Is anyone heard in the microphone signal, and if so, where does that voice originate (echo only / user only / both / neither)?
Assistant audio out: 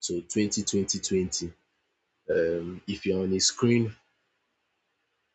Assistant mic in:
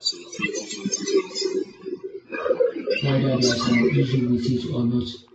both